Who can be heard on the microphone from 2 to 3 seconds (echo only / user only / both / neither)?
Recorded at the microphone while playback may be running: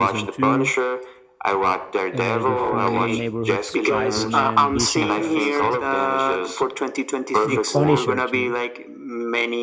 both